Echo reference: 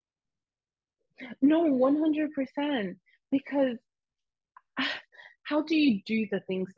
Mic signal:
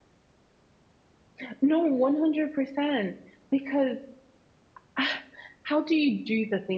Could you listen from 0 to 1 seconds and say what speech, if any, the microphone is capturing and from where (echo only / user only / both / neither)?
neither